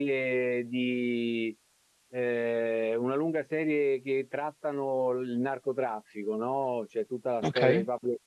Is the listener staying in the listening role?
Yes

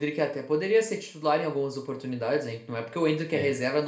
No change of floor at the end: Yes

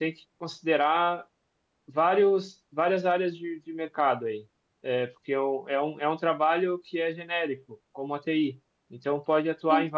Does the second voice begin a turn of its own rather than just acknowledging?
No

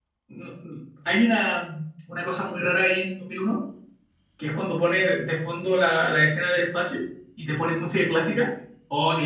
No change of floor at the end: Yes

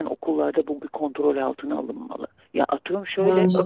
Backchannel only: Yes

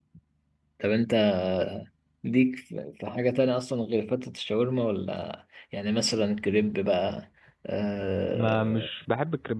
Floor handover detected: Yes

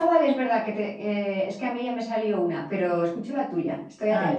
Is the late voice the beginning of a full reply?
Yes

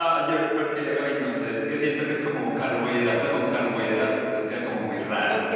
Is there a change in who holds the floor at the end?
Yes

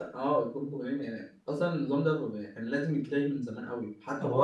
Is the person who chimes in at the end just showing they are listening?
No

